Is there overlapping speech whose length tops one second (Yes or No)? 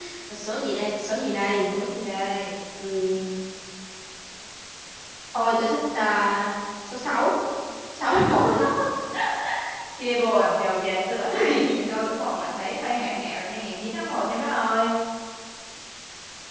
No